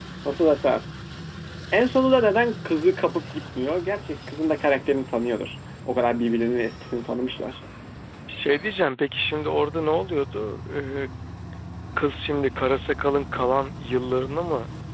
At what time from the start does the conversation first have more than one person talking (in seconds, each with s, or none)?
none